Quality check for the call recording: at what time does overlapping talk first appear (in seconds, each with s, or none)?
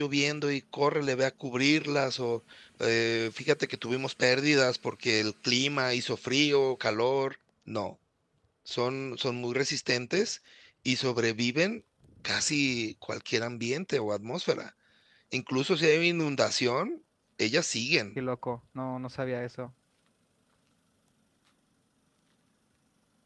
none